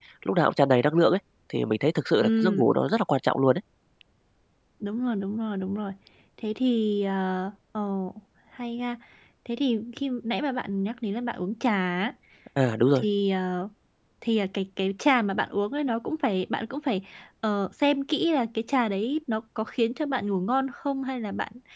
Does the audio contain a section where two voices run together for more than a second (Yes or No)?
No